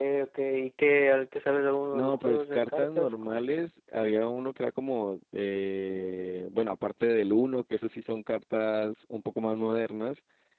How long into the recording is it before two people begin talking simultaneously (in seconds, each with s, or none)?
1.9 s